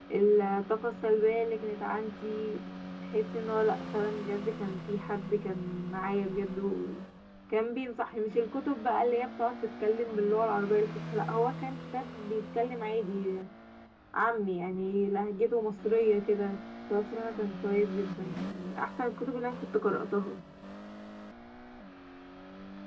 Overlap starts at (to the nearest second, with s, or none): none